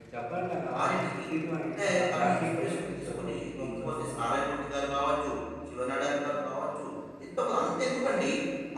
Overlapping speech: Yes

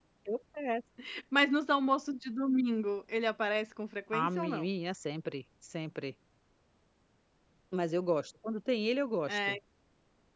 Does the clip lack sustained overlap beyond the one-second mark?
Yes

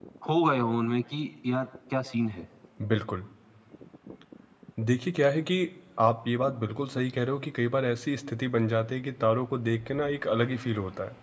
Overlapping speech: No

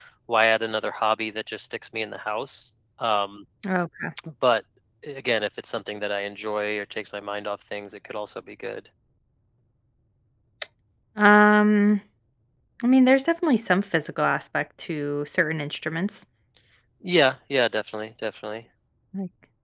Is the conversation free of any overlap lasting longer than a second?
Yes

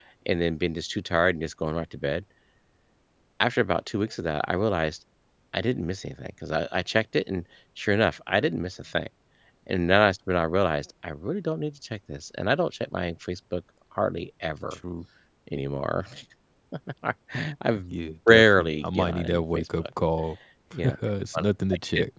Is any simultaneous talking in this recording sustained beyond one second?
Yes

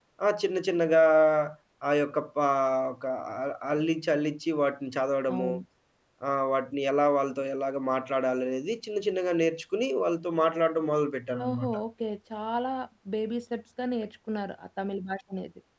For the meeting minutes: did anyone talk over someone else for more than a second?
No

